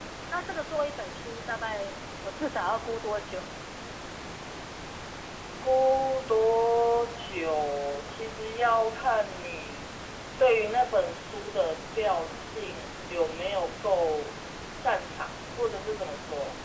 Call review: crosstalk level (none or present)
none